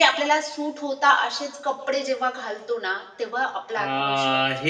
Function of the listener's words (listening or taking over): taking over